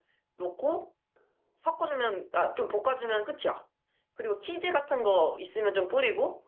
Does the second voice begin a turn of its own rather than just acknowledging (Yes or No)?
No